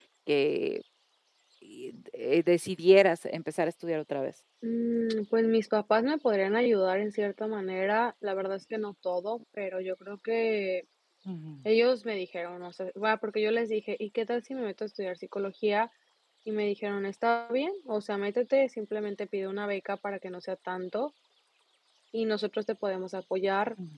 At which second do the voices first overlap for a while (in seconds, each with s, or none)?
none